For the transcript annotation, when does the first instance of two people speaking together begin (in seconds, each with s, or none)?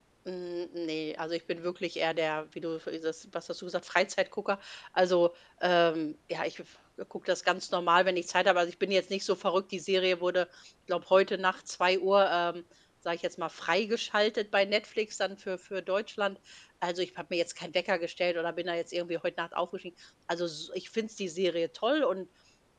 none